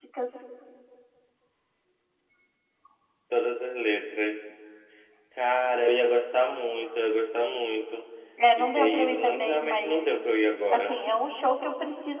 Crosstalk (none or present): present